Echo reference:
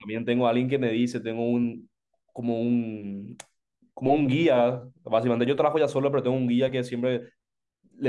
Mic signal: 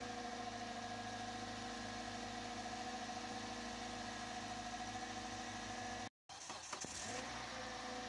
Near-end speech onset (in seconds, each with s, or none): none